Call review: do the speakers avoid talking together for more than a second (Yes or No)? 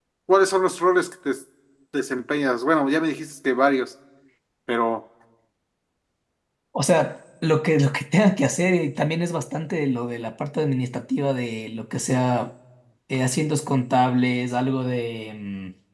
Yes